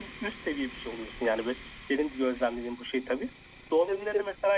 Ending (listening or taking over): listening